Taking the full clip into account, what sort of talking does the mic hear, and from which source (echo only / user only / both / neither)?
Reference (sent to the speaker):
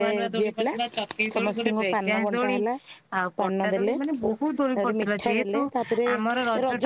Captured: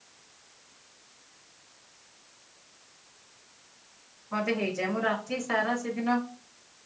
user only